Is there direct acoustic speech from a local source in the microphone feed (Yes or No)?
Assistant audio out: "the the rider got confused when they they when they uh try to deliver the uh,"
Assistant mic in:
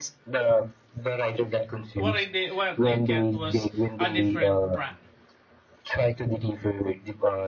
Yes